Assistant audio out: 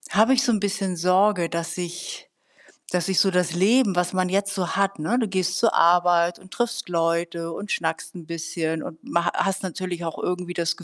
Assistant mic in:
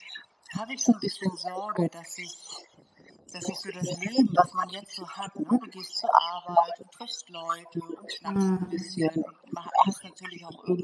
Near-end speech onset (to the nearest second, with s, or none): 8 s